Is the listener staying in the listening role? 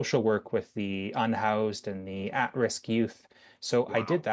Yes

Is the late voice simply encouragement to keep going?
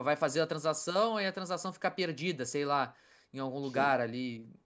Yes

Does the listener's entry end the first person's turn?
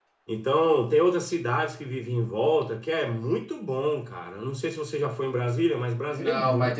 Yes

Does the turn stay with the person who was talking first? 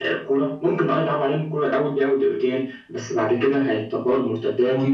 No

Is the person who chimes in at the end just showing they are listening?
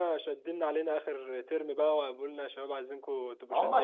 No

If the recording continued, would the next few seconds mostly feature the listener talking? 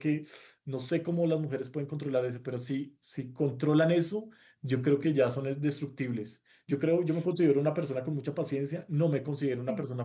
No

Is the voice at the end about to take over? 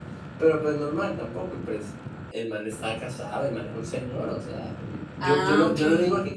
No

